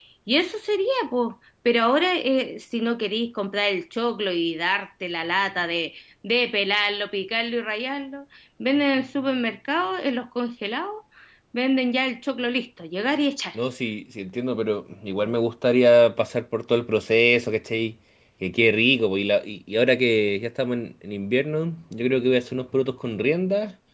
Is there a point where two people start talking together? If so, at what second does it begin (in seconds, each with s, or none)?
none